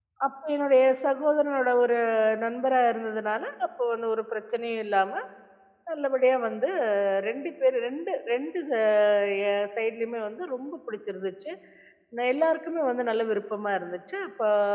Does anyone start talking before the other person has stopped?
No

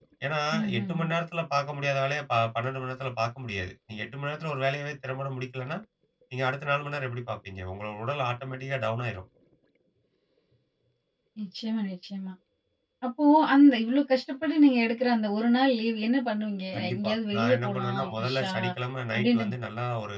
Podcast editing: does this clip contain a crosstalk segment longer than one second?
Yes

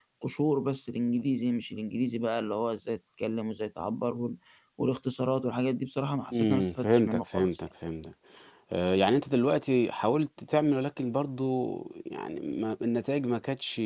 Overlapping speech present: Yes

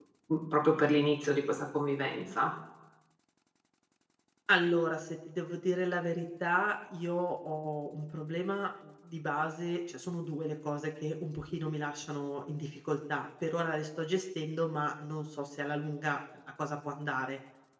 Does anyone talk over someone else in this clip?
No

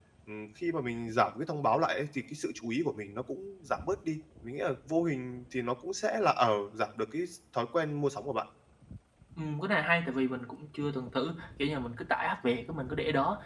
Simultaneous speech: No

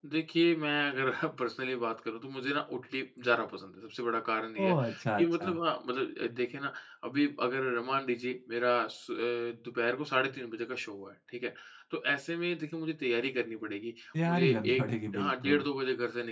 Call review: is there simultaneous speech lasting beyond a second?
Yes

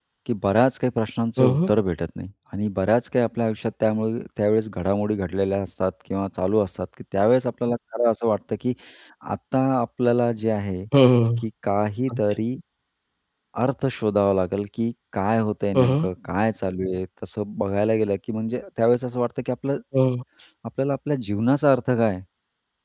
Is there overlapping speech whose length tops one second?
No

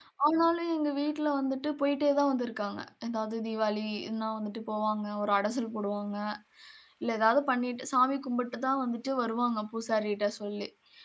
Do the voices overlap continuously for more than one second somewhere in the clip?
No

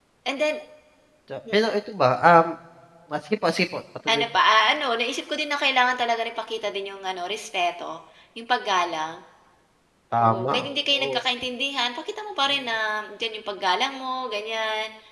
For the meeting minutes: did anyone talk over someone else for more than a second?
No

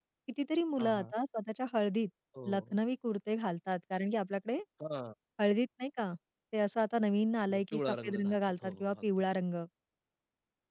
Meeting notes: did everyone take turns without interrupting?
No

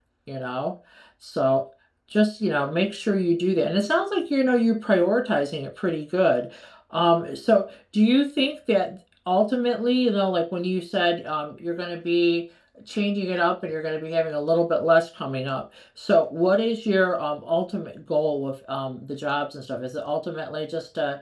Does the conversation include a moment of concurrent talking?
No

